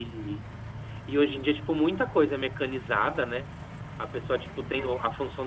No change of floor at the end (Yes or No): Yes